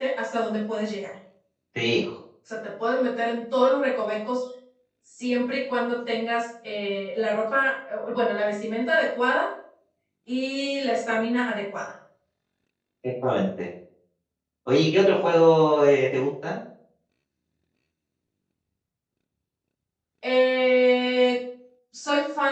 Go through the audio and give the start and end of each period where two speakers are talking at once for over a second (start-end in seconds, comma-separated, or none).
none